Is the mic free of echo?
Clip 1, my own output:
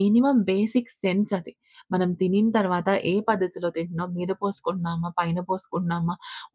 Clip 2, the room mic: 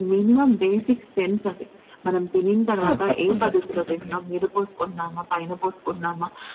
No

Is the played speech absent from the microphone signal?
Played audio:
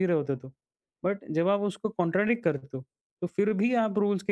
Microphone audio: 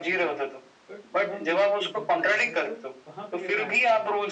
No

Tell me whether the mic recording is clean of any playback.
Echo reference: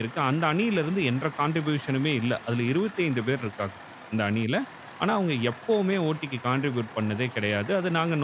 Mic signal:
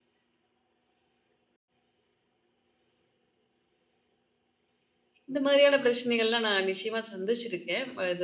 Yes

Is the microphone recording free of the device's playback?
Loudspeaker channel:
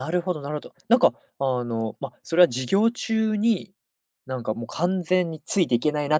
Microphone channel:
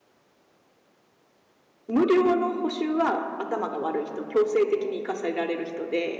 Yes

